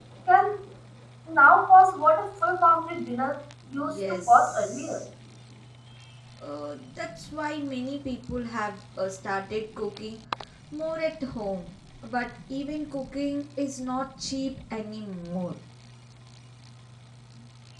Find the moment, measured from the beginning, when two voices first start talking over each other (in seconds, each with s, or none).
3.7 s